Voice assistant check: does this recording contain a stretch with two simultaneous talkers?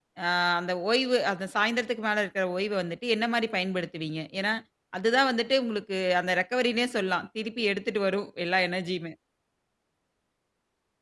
No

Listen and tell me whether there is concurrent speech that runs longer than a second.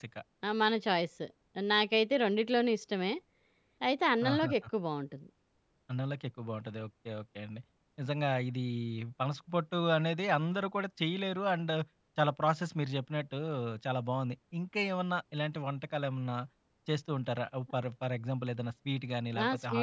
No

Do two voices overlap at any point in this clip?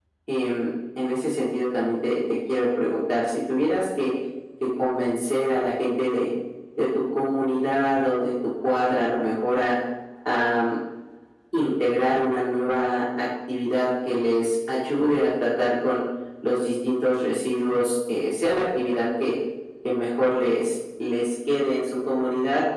No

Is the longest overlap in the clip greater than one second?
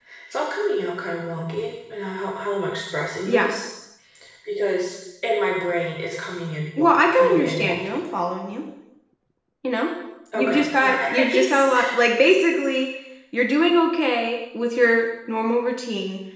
Yes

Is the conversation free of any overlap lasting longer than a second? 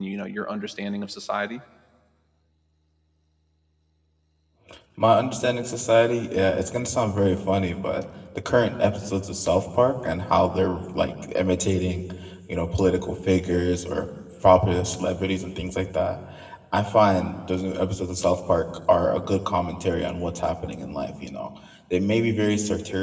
Yes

